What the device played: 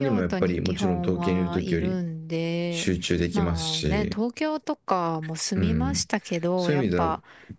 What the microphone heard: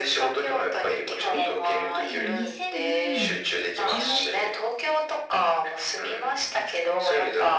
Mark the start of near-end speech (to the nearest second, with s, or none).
1 s